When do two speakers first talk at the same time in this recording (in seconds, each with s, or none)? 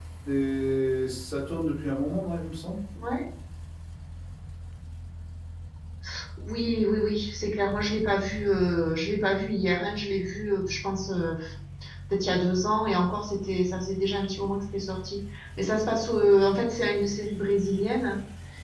none